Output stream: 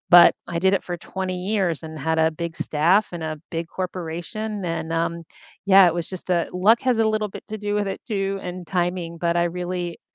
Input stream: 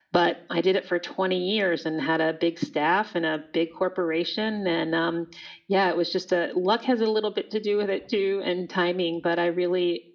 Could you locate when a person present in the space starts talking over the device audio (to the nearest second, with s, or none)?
none